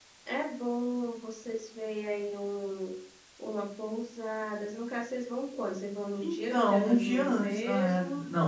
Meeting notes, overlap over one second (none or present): present